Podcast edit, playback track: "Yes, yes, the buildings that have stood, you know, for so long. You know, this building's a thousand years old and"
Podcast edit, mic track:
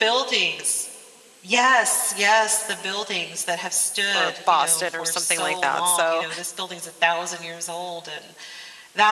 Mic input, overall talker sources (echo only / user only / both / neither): both